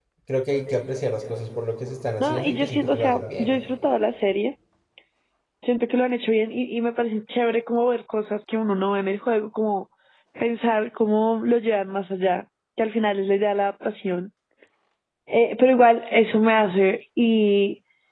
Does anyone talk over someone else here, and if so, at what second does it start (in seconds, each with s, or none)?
2.2 s